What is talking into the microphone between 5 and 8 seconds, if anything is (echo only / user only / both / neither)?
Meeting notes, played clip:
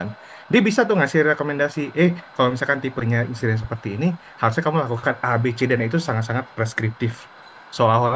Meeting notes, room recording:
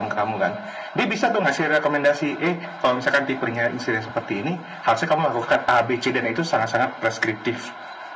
echo only